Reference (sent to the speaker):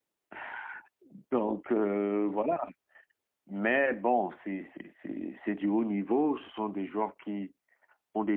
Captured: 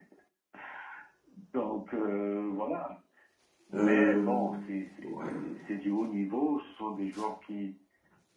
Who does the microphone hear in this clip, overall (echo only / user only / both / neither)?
both